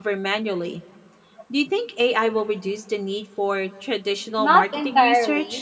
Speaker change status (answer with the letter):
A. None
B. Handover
B